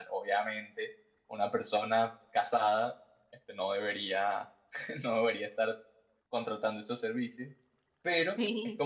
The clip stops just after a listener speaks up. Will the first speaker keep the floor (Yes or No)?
Yes